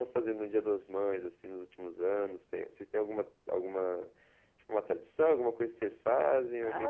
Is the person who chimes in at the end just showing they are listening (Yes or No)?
No